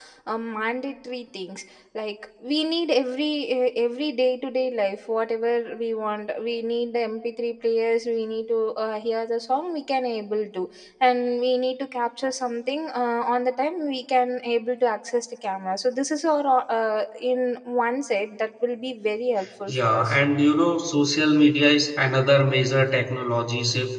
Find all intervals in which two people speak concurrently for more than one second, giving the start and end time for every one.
none

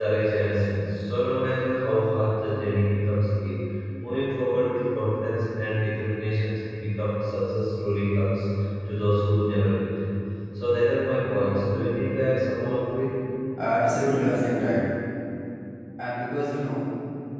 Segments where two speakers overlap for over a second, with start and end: none

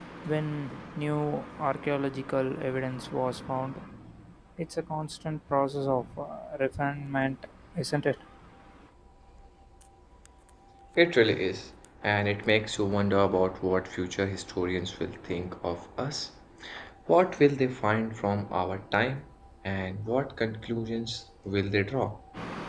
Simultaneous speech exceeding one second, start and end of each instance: none

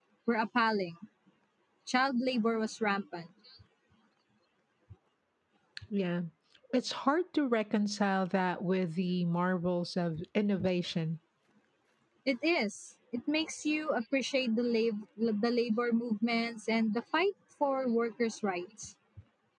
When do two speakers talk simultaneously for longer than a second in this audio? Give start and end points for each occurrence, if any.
none

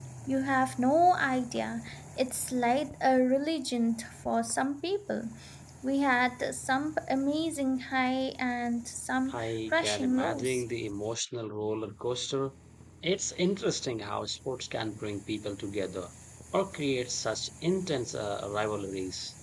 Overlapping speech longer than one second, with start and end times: 9.3-10.6

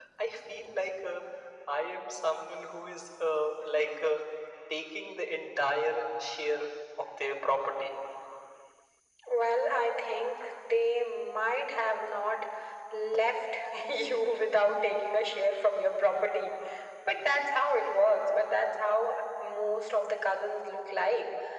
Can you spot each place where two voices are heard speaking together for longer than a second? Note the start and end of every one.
none

